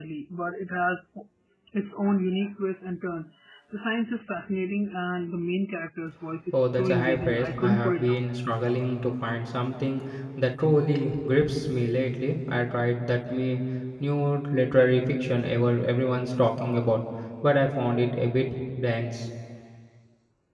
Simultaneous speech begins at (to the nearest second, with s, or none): 7 s